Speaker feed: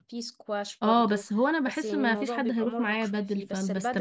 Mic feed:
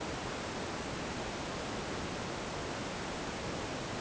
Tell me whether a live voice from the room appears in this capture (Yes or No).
No